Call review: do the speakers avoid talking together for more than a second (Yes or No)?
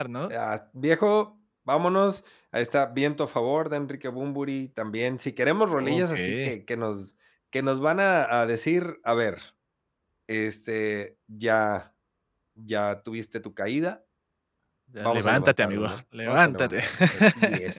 No